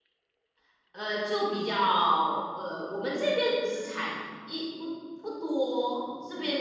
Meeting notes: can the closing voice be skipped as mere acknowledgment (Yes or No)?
Yes